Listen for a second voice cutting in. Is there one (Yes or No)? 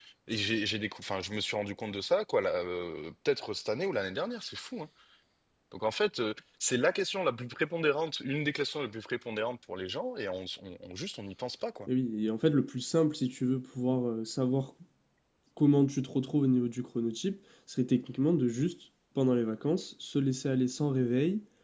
No